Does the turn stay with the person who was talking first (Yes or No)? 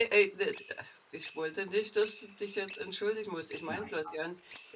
Yes